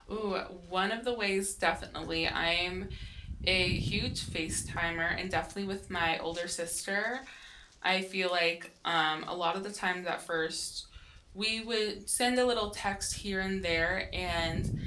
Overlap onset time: none

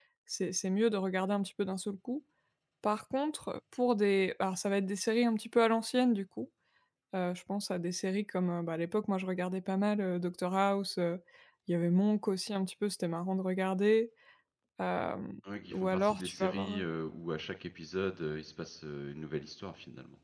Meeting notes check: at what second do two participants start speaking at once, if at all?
15.6 s

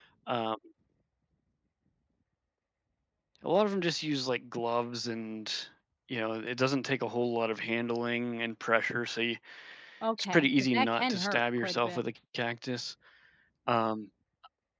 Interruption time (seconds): 10.2 s

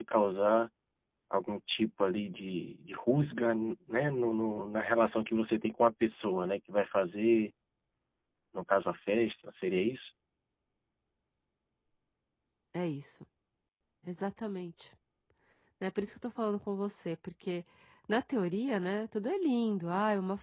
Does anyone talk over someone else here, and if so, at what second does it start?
none

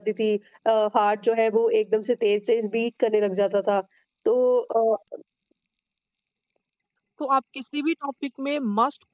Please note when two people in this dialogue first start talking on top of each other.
none

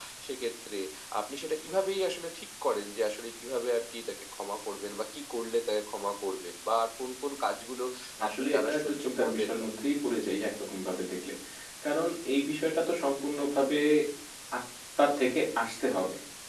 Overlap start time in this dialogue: 8.3 s

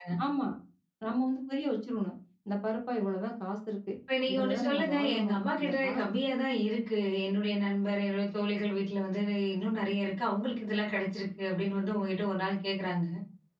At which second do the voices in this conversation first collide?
4.3 s

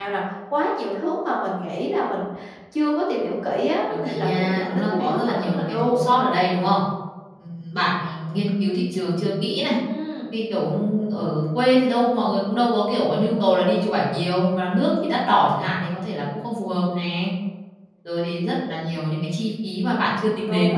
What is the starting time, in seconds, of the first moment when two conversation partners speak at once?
3.9 s

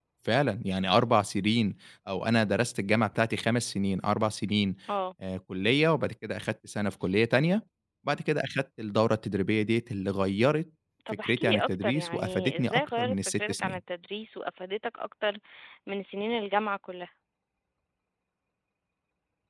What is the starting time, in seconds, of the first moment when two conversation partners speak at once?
11.3 s

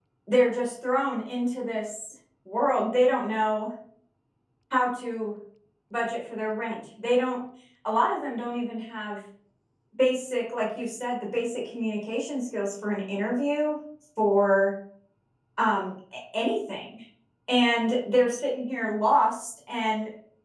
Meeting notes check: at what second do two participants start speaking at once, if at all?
none

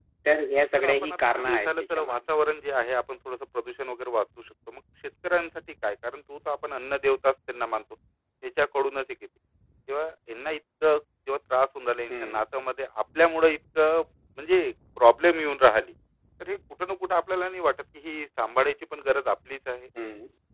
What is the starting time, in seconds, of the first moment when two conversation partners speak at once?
0.8 s

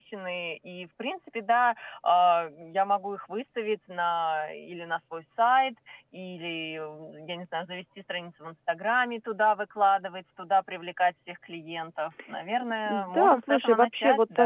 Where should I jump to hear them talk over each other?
12.9 s

